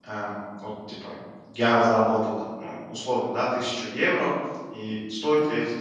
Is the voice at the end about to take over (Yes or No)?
No